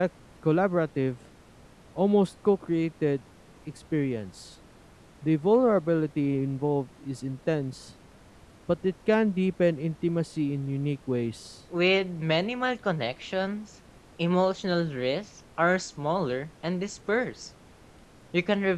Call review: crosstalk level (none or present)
none